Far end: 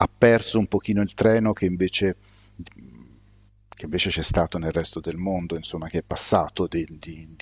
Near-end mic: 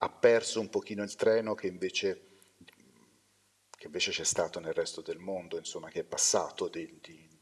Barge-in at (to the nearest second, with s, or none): none